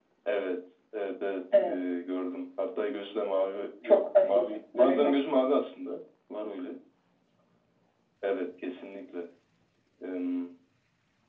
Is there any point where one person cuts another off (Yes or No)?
Yes